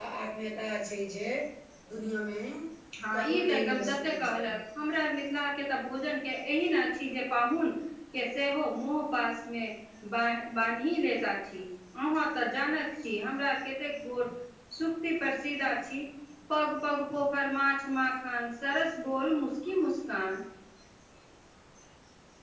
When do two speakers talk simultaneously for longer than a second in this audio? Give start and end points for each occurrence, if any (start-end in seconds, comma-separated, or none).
3.2-4.5